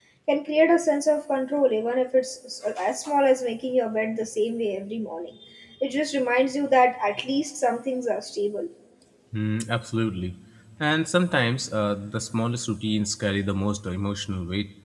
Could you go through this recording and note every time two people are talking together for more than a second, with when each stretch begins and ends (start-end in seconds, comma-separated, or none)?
none